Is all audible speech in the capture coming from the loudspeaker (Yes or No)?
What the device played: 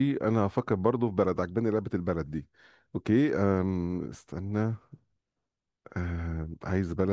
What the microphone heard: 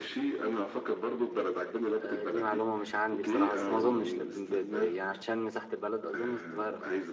No